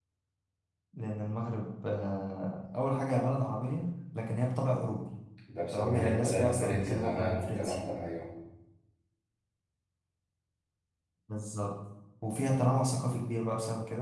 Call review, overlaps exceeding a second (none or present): present